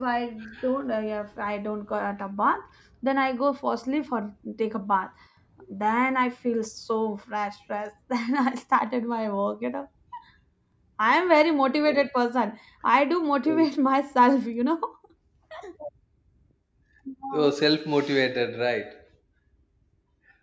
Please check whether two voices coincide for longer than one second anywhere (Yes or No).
No